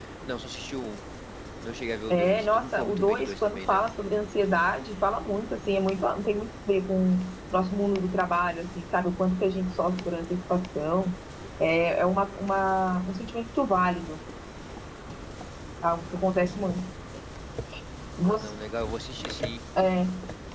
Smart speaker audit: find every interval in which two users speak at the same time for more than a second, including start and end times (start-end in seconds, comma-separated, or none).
2.1-3.8